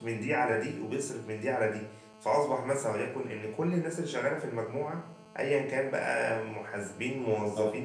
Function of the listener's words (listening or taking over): listening